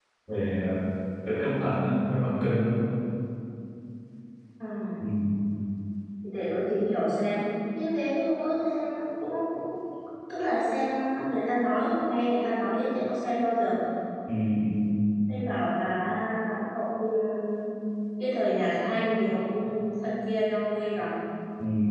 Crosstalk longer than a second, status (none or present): none